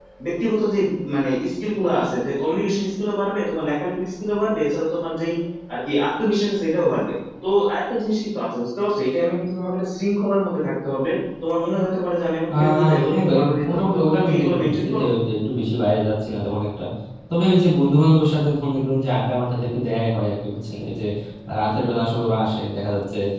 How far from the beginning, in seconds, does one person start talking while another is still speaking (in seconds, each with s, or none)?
12.5 s